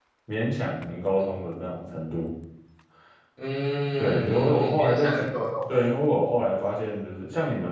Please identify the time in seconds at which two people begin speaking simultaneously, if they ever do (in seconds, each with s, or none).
4.0 s